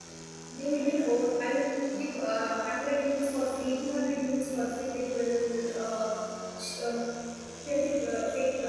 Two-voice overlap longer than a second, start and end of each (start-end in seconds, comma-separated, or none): none